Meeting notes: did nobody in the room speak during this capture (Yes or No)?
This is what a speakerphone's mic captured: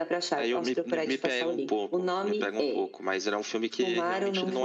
Yes